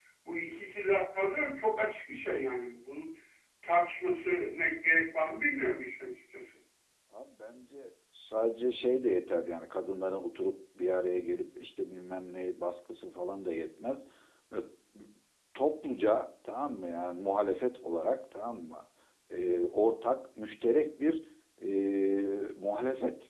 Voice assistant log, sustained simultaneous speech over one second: none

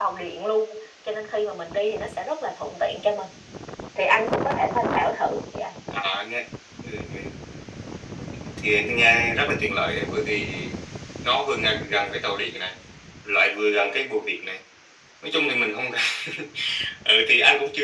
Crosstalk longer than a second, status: none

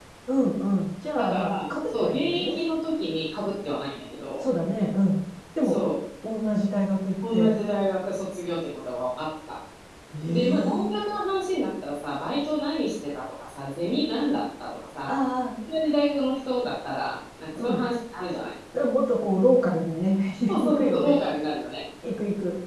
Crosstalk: present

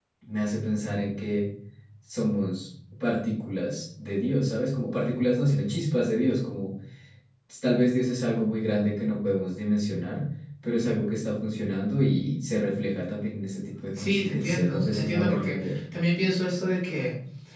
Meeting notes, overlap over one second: present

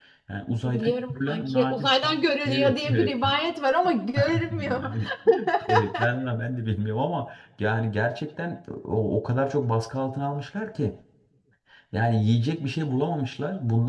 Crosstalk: present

